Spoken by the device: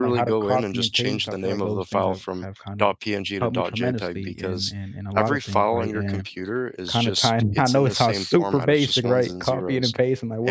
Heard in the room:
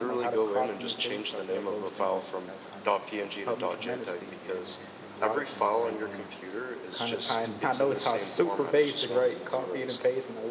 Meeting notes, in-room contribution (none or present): none